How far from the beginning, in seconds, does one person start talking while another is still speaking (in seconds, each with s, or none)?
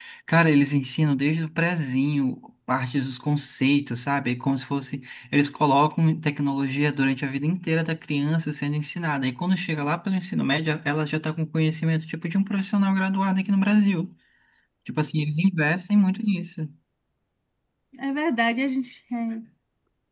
none